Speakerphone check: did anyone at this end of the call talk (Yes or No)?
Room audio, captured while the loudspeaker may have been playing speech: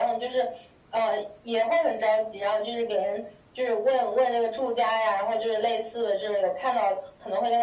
No